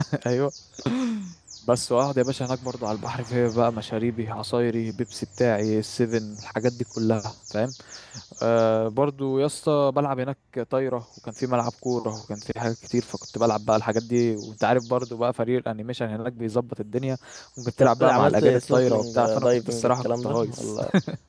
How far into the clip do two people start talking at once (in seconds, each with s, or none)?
17.8 s